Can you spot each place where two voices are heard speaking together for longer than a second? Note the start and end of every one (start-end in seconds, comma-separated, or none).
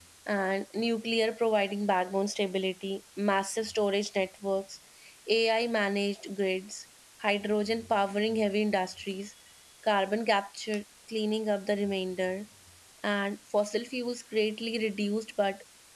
none